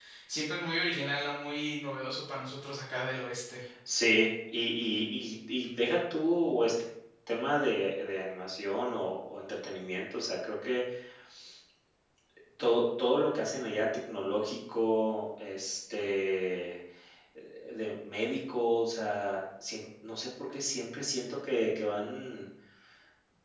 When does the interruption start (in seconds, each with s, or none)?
none